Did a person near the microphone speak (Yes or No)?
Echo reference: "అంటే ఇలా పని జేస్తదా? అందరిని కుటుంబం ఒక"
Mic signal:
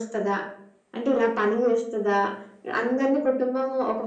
No